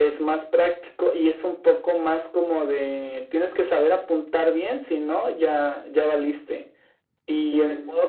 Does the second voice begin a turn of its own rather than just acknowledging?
No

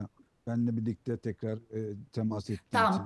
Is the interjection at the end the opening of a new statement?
Yes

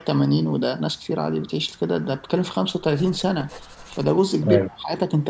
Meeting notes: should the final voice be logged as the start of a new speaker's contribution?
No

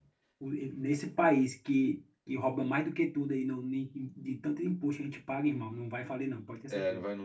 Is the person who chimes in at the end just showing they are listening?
No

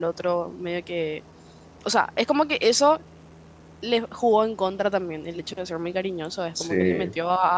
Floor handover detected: No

